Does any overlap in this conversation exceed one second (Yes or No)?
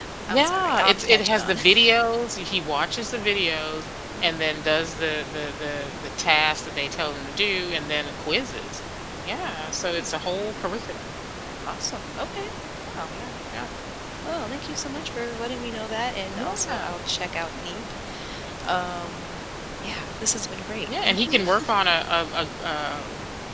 Yes